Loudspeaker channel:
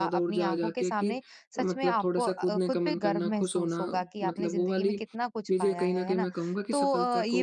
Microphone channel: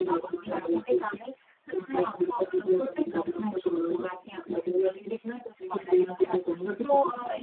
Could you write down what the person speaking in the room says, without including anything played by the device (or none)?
none